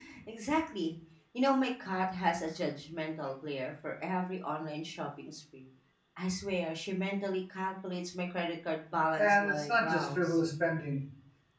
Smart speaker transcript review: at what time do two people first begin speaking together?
9.1 s

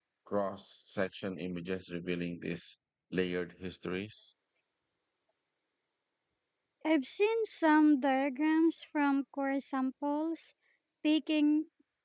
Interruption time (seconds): none

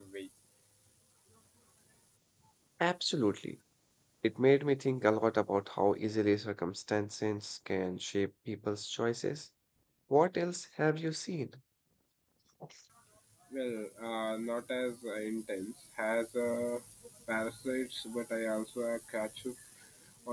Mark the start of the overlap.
none

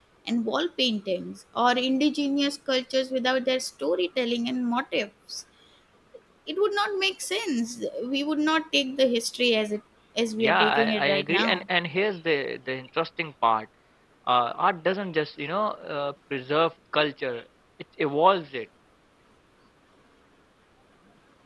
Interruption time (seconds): 10.4 s

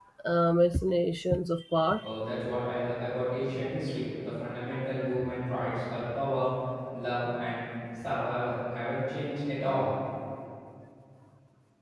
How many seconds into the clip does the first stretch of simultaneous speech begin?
none

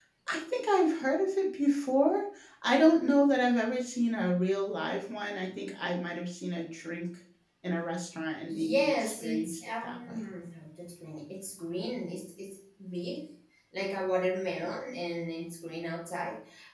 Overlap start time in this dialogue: 8.5 s

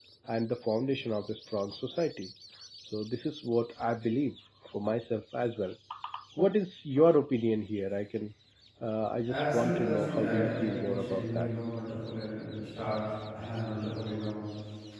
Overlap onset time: 9.2 s

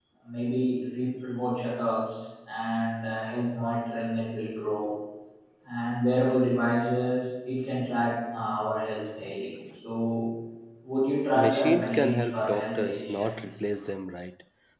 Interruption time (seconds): 11.3 s

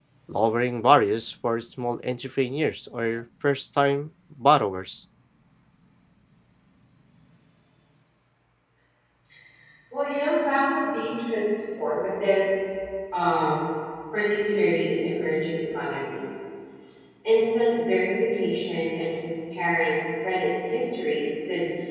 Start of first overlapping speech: none

